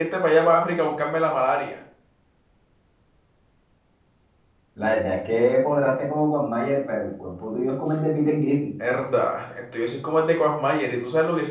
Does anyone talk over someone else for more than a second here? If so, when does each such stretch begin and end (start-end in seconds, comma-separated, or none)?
none